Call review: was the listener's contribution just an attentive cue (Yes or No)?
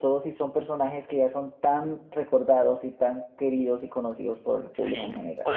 No